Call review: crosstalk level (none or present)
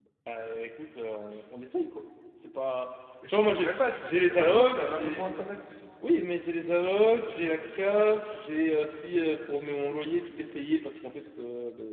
present